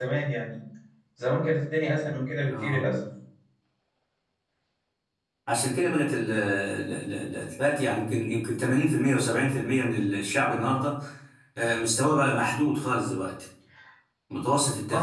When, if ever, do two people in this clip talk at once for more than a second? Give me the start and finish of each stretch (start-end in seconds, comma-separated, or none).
none